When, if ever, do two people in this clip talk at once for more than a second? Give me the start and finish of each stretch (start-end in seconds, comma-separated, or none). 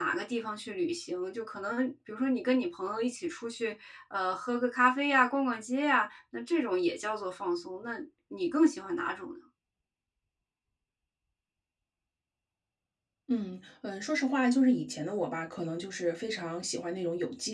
none